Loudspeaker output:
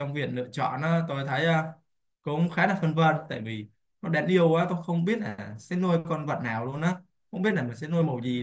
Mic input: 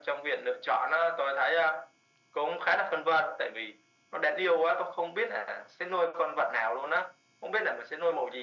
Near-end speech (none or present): none